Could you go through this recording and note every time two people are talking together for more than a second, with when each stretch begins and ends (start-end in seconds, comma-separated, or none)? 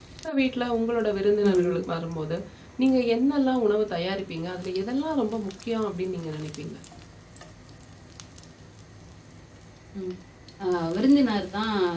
none